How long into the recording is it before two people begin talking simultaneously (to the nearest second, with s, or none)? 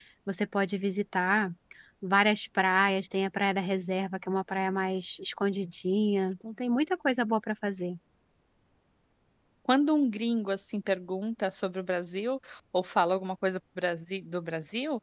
none